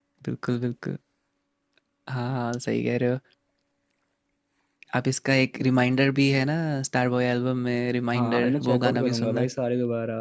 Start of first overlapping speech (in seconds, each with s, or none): 8.1 s